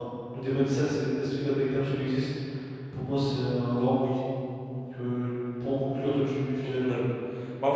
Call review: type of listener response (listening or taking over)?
taking over